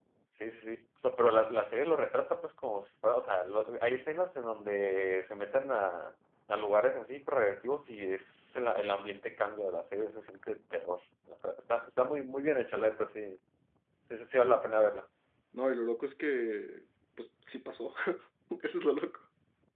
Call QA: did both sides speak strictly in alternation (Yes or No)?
Yes